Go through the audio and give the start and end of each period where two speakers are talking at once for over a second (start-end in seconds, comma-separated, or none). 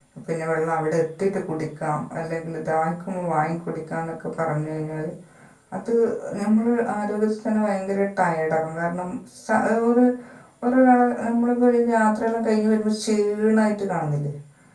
none